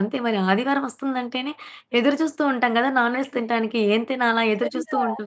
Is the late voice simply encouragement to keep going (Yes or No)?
No